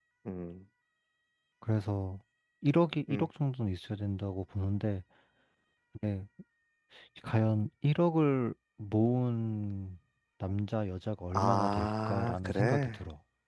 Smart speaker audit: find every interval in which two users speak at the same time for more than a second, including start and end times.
11.3-13.0

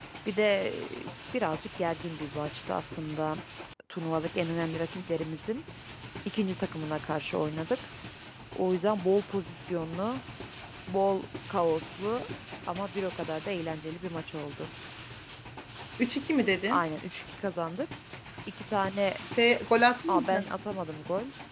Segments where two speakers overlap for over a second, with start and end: none

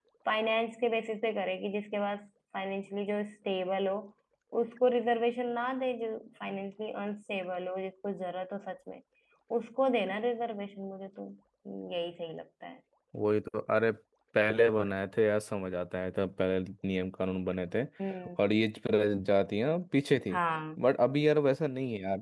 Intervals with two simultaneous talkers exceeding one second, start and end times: none

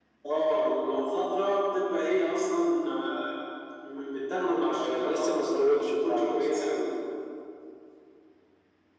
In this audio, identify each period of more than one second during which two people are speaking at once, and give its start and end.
4.7-6.6

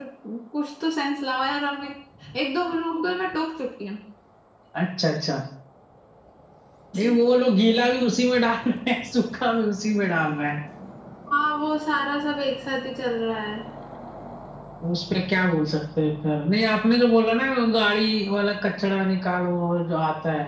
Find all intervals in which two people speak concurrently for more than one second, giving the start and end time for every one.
none

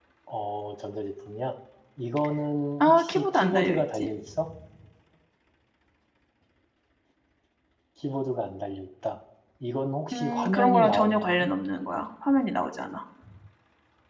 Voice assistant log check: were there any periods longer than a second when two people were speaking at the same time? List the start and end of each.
2.8-4.1, 10.1-11.5

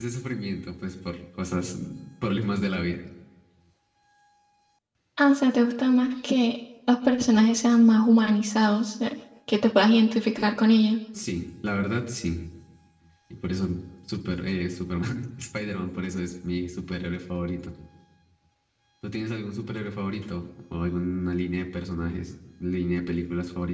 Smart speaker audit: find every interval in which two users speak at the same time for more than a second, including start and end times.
none

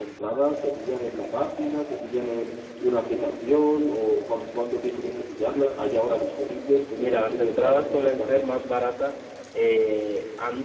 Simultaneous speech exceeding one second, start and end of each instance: 7.0-8.6

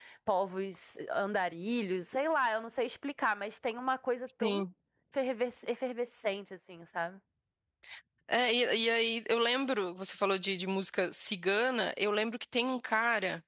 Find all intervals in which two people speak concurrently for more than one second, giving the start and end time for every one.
none

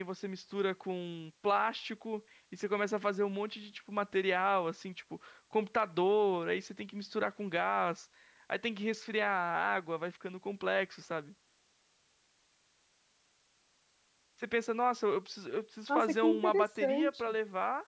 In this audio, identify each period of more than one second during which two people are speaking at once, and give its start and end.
15.9-17.2

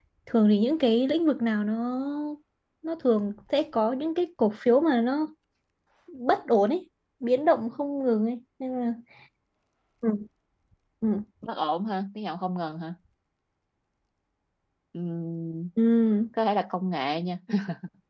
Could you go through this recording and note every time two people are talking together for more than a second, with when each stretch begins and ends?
none

